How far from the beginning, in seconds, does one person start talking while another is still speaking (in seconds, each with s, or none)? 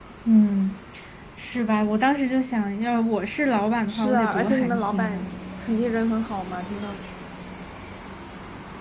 3.9 s